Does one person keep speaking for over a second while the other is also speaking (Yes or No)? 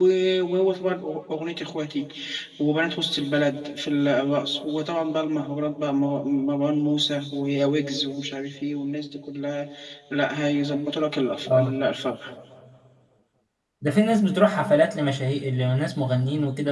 No